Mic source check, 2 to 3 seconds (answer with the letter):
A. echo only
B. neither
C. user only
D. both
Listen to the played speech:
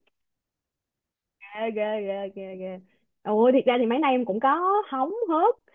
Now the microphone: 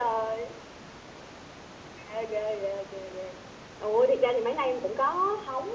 A